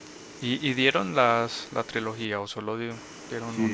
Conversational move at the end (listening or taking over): taking over